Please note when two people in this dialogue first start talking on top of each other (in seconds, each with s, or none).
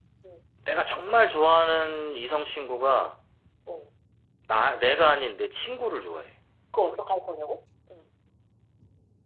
none